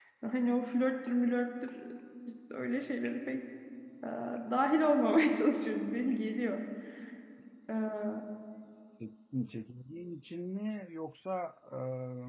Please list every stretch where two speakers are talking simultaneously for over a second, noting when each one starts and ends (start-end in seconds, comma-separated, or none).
none